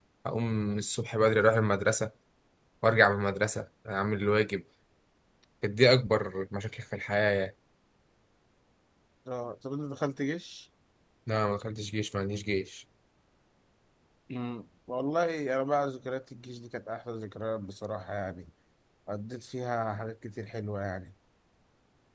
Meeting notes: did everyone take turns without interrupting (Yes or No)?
Yes